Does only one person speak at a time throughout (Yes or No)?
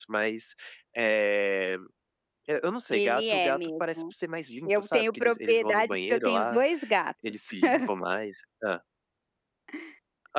No